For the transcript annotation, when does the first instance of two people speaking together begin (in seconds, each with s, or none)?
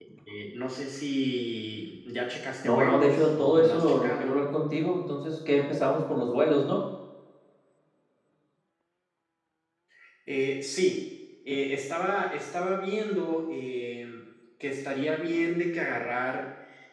2.6 s